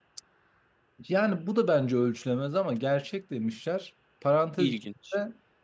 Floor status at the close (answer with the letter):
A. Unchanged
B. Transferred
A